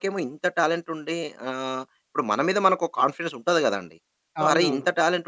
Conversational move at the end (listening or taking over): listening